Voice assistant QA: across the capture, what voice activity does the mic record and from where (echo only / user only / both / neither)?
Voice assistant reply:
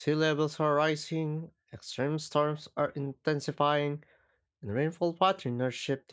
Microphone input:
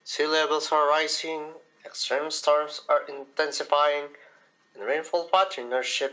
echo only